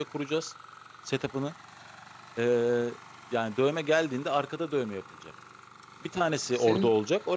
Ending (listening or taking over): listening